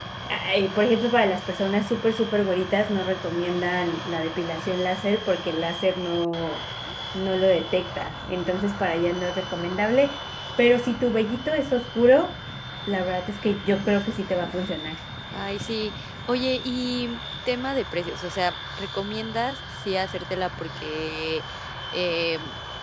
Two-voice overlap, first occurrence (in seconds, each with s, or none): none